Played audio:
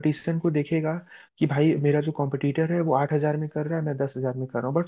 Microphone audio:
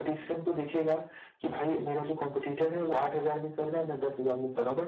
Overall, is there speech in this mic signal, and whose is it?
echo only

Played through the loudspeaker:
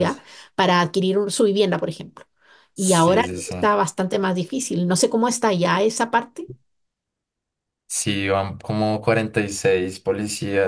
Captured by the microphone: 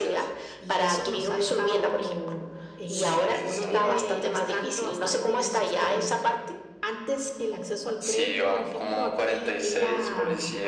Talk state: both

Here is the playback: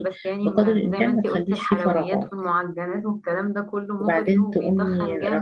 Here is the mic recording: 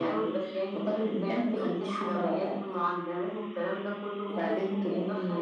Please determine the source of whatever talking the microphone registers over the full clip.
echo only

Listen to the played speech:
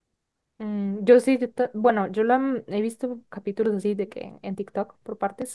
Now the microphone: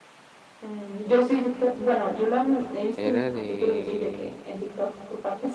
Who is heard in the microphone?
both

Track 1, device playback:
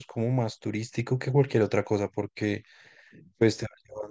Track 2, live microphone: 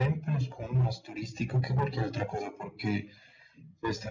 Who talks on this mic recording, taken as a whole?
echo only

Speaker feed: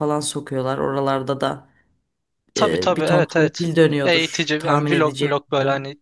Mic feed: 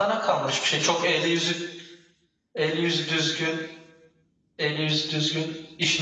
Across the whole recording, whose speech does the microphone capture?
user only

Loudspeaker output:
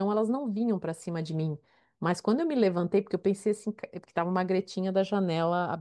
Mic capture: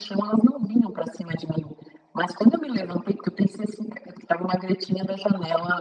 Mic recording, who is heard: echo only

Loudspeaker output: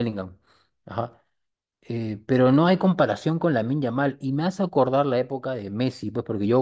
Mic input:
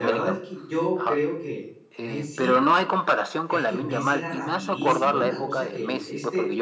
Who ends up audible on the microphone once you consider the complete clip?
both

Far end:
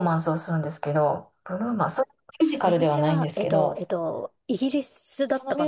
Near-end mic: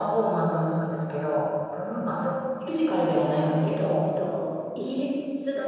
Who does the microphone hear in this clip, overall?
echo only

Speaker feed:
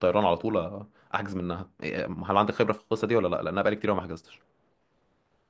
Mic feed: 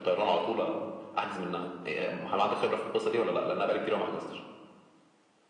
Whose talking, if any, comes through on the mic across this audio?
echo only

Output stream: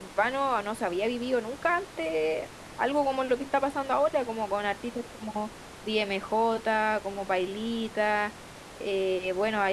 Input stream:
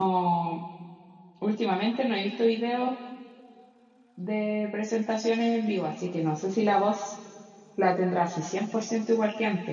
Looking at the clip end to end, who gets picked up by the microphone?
user only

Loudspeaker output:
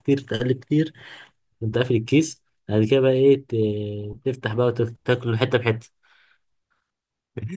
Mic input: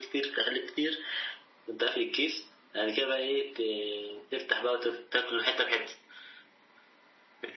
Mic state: echo only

